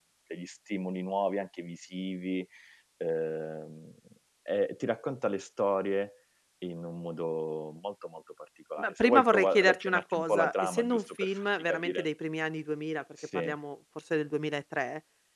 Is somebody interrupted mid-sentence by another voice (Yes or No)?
Yes